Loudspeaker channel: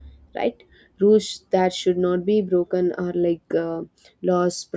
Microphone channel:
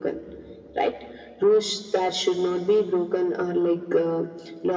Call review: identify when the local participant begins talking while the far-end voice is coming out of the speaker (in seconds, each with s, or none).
none